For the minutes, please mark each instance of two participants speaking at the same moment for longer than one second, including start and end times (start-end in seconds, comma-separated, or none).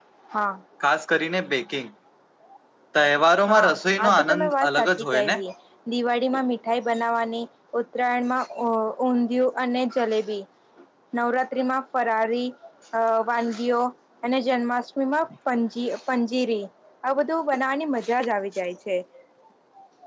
3.5-5.3